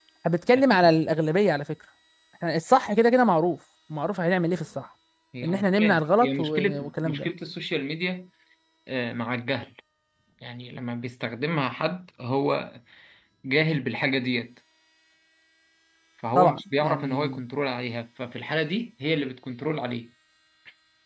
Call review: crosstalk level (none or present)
present